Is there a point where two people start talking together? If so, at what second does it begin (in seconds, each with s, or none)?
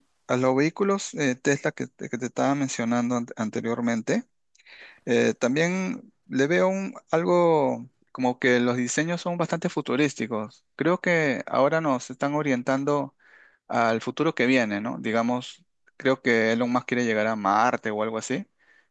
none